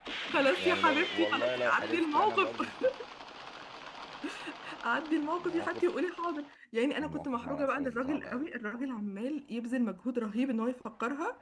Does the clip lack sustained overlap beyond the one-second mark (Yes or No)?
No